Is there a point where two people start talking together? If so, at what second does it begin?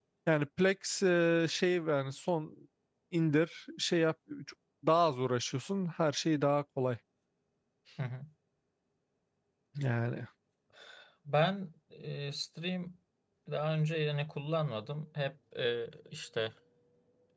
none

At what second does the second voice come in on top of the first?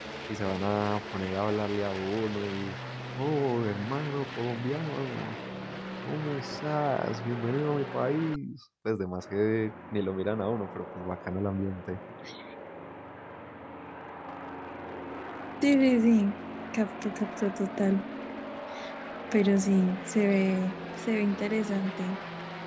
none

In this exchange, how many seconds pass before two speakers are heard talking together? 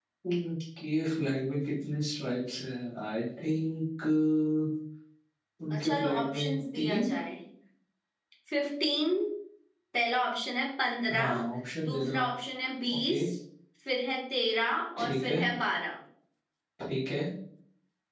5.8 s

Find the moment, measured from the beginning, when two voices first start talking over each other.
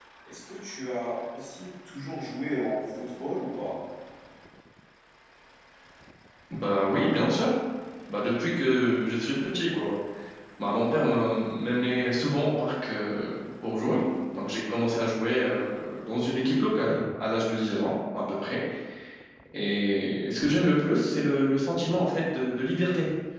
none

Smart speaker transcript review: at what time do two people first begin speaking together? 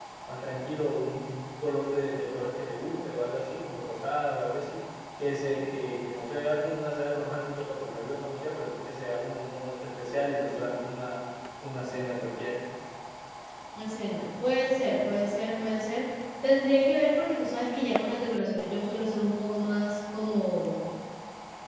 none

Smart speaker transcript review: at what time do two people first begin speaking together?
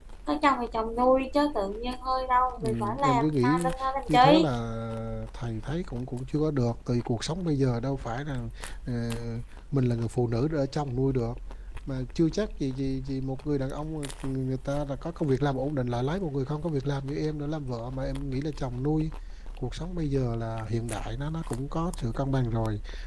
2.6 s

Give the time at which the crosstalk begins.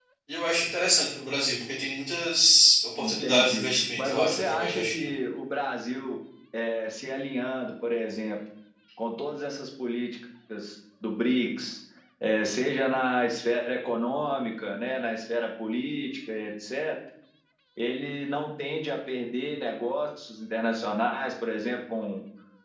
3.0 s

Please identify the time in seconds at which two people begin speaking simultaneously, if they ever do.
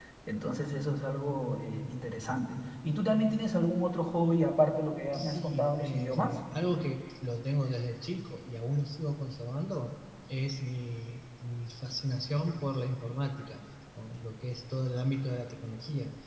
5.1 s

